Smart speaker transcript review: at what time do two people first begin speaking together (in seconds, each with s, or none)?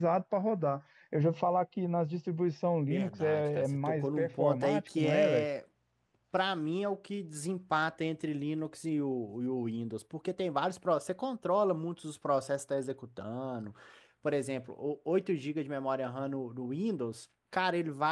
2.9 s